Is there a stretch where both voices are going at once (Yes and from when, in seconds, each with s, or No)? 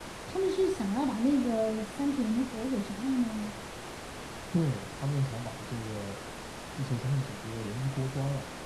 No